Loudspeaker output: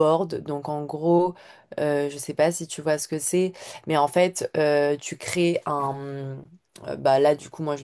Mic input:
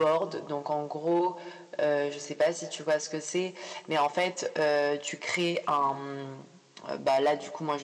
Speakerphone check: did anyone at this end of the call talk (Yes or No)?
No